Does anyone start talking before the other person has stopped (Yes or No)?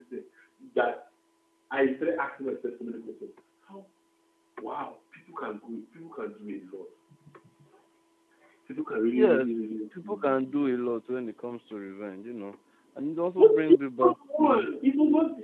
Yes